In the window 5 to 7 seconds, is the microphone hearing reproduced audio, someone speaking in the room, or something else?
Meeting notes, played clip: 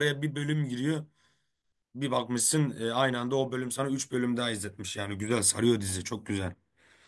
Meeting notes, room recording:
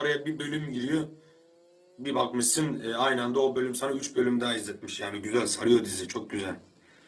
echo only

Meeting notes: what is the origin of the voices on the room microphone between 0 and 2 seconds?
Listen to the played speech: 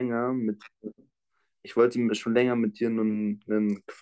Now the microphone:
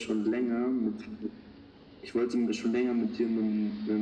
echo only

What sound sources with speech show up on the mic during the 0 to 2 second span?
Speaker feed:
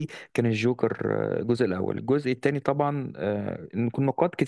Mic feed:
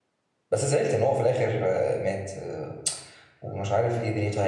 user only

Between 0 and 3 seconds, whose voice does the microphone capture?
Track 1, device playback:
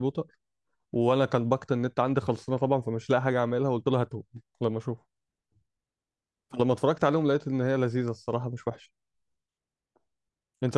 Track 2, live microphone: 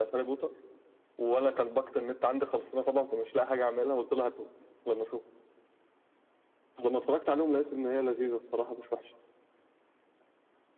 echo only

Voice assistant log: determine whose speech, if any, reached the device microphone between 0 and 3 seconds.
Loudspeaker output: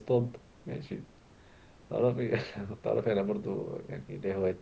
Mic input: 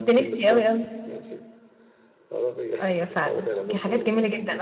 both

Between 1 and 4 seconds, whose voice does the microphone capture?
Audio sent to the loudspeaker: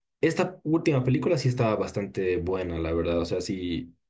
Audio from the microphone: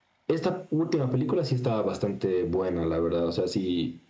echo only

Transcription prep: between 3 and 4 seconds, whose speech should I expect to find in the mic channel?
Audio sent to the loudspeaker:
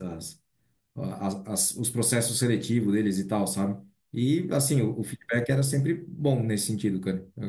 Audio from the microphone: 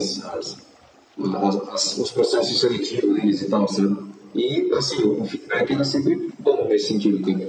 echo only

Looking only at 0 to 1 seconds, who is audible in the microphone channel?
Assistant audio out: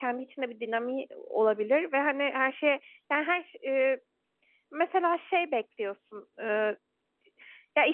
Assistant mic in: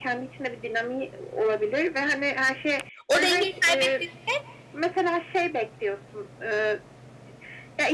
echo only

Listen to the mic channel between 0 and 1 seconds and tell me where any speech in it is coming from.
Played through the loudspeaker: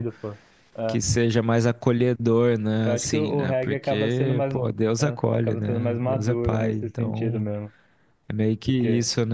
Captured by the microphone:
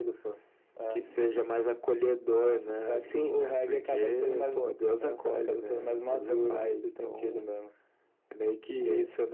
echo only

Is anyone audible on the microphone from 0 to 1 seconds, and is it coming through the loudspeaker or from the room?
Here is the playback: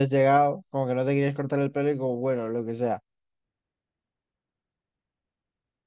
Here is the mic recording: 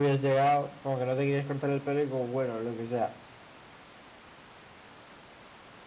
echo only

